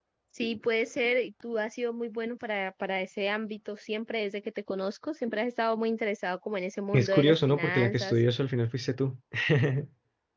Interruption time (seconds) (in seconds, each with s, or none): 6.9 s